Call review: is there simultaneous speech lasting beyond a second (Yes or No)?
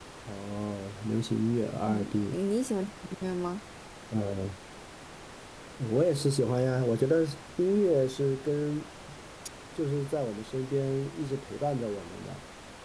No